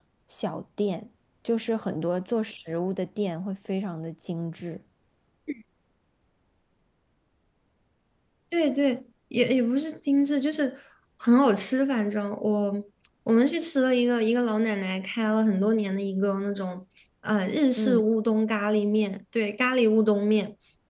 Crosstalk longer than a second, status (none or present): none